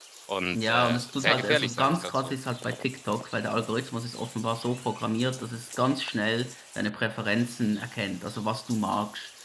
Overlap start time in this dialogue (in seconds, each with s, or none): 0.5 s